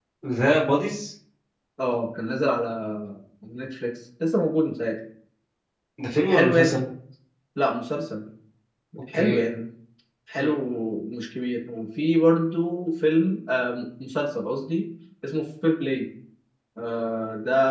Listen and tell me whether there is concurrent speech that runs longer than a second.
No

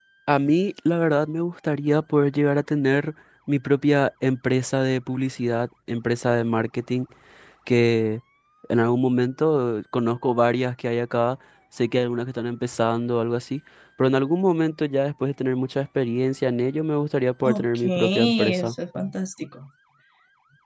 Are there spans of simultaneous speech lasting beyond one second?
Yes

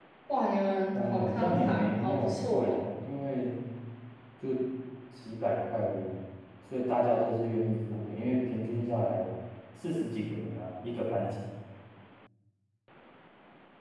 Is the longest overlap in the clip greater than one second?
Yes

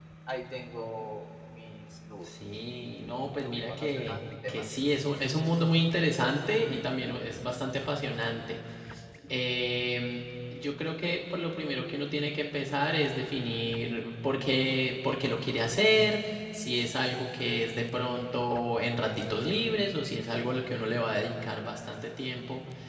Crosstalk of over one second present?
Yes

